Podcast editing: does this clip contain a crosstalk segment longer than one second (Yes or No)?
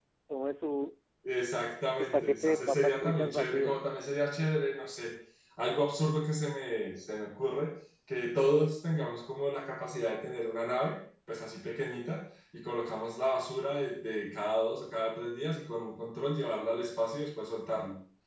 Yes